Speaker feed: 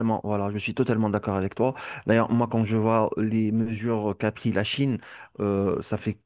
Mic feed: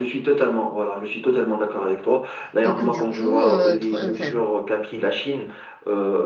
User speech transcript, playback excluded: et que du coup, euh, Tr- euh, enfin,

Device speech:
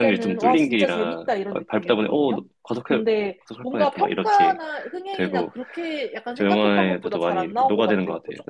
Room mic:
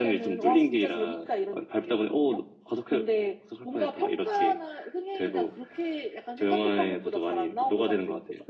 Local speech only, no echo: none

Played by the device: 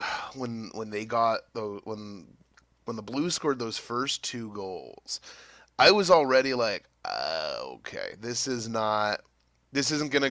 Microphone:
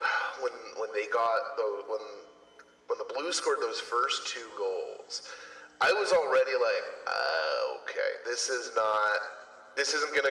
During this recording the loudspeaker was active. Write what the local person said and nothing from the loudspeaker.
none

